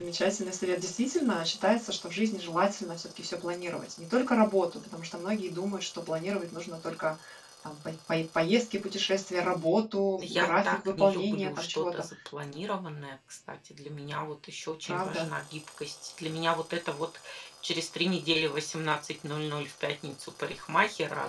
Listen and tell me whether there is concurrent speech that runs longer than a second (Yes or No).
Yes